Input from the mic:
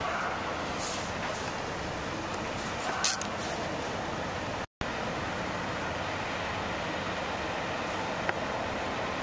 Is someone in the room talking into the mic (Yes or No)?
No